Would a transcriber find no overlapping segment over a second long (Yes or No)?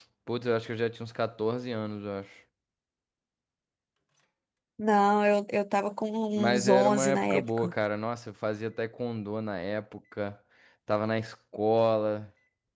No